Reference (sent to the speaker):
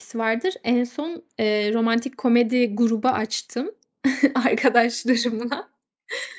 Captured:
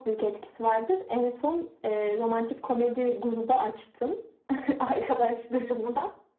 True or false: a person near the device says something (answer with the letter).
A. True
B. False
B